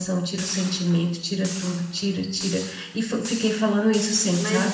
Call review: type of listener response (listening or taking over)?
taking over